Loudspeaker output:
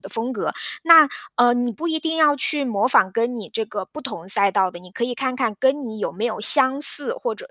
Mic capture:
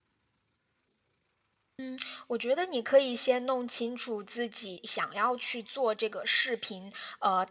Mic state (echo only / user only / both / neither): user only